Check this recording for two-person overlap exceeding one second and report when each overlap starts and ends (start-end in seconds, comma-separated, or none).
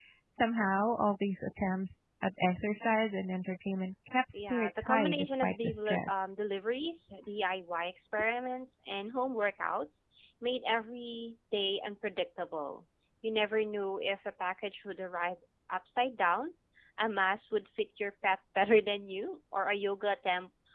4.3-6.3